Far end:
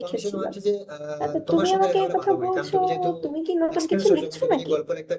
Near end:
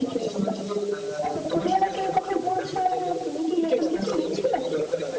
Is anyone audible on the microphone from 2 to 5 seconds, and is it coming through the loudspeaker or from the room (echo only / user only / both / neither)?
both